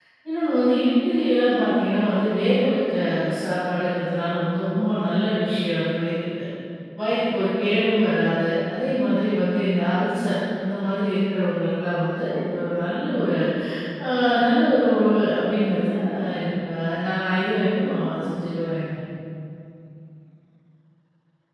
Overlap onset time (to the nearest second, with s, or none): none